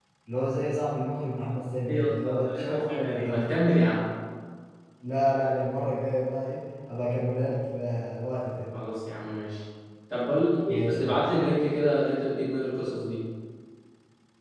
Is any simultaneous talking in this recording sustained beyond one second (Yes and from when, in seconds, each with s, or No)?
Yes, from 1.9 s